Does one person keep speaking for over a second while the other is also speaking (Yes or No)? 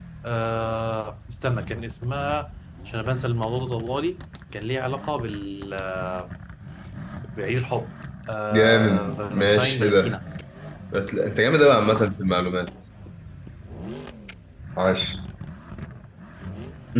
Yes